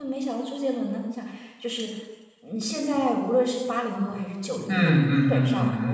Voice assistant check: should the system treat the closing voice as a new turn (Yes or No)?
Yes